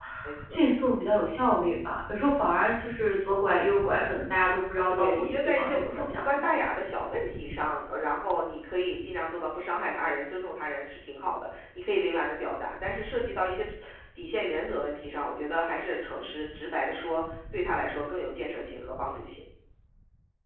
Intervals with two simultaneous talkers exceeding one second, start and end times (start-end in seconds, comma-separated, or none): 4.9-6.5